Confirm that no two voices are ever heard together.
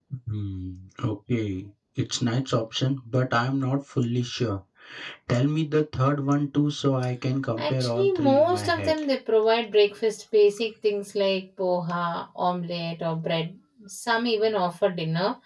No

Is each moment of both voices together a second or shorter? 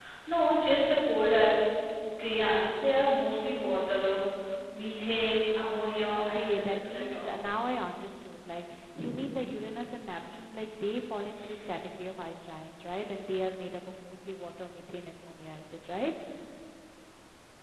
No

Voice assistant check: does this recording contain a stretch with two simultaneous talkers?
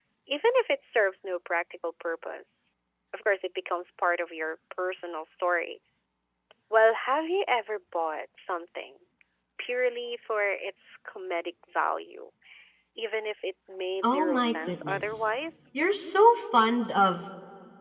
Yes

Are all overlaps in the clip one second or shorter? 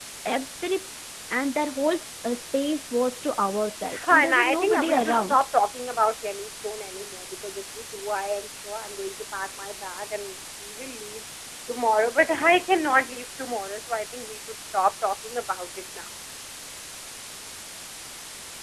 No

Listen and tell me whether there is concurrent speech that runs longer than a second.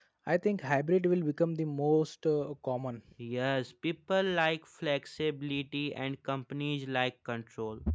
No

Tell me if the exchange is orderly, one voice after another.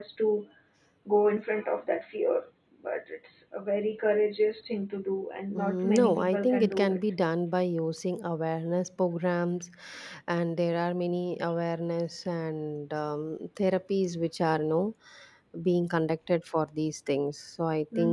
No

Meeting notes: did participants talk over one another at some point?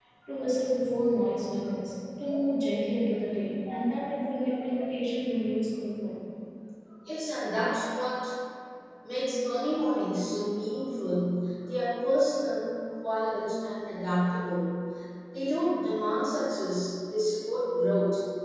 No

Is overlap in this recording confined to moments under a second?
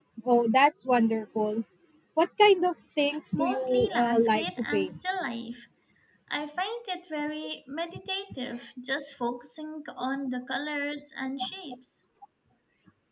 No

